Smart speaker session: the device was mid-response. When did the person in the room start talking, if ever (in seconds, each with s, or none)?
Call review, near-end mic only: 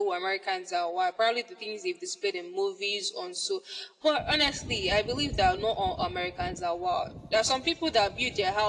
none